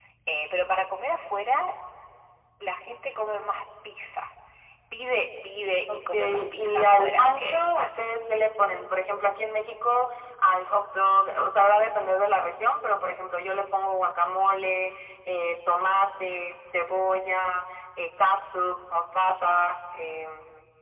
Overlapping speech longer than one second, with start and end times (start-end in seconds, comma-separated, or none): 5.9-7.9